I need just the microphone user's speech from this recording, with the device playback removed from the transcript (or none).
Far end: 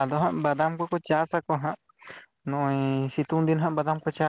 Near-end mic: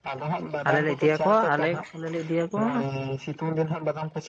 ᱟᱞᱮ ᱞᱮ ᱤᱫᱤ ᱭᱟᱠᱚᱣᱟ ᱟᱞᱮ ᱟᱞᱮ ᱞᱮ ᱤᱫᱤ ᱭᱟᱠᱚᱣᱟ